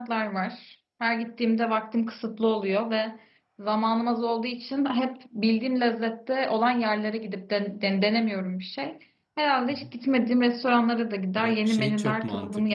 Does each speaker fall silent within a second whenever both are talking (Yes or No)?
No